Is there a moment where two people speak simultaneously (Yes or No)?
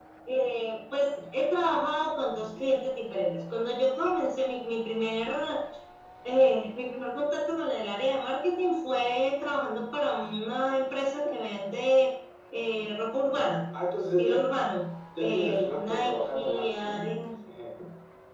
Yes